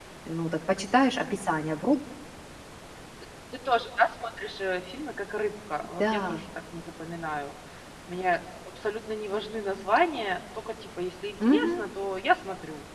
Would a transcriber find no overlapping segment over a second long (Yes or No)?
Yes